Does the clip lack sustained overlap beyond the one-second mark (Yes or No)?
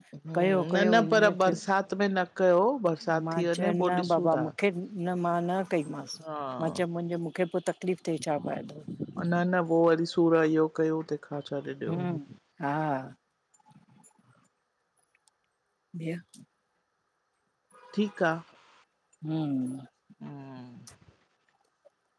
No